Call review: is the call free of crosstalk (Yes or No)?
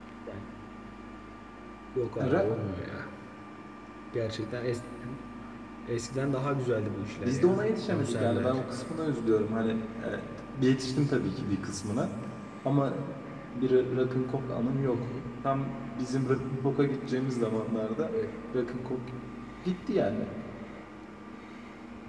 No